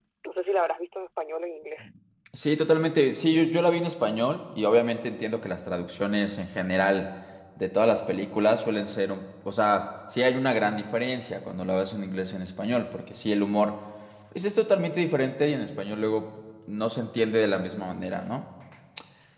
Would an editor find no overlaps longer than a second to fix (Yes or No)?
Yes